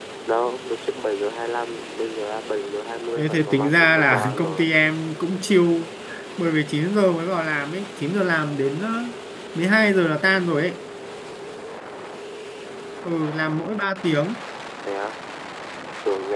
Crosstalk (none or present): present